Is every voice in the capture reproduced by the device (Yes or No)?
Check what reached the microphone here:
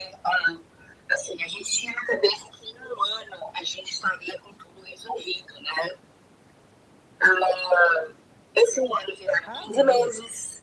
No